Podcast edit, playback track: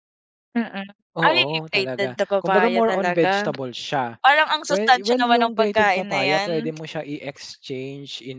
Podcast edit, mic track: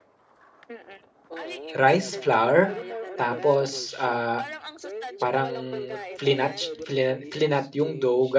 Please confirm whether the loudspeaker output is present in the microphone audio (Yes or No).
Yes